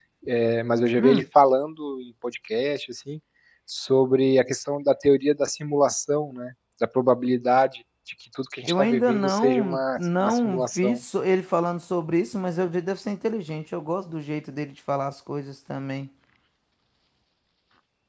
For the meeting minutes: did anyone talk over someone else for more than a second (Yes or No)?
Yes